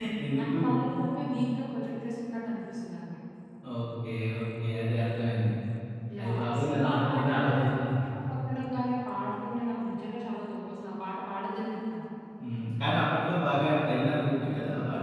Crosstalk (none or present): present